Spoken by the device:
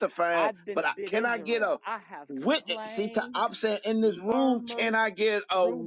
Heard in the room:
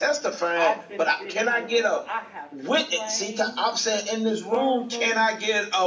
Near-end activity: none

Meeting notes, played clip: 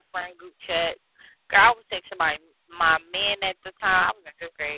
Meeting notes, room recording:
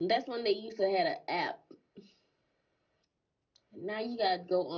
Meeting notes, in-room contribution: present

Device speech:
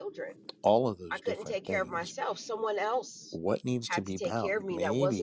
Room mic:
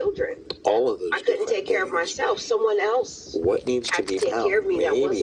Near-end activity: none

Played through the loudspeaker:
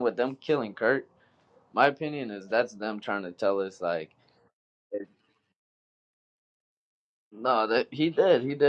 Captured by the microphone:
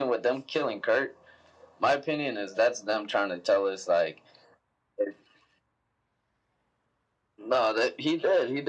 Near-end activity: none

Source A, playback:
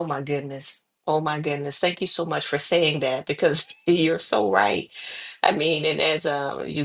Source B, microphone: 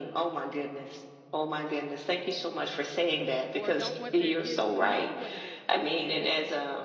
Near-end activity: present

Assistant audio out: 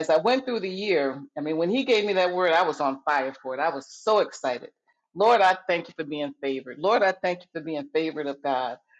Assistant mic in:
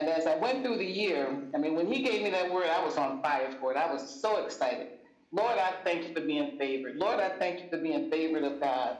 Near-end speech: none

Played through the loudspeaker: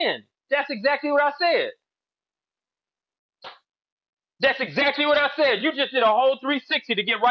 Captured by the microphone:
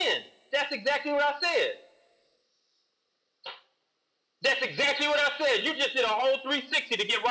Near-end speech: none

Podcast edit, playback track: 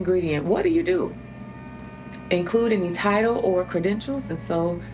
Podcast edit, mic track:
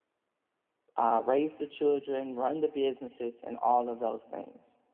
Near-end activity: present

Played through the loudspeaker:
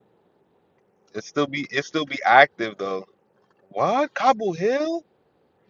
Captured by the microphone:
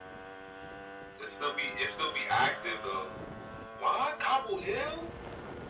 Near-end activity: none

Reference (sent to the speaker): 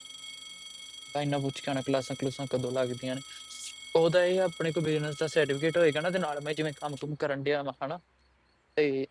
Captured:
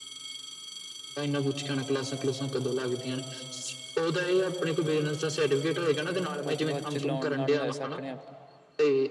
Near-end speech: present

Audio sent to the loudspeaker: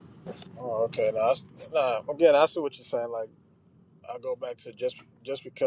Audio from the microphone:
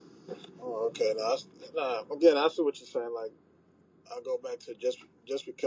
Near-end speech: none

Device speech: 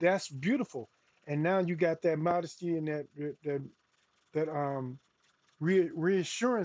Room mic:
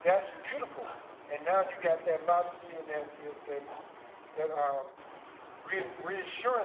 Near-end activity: none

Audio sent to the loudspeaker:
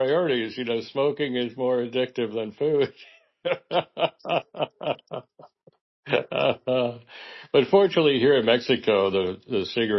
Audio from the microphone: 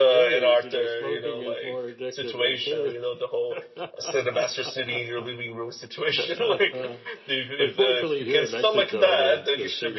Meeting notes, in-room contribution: present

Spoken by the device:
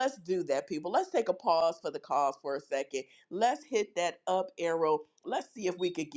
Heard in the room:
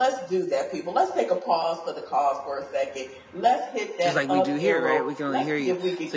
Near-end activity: present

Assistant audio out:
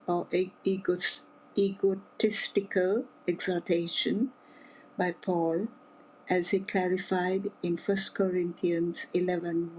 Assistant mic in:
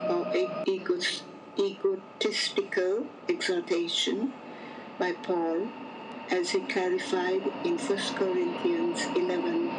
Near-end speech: none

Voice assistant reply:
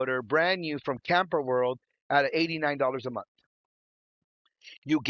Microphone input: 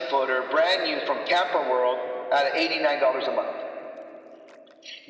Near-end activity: none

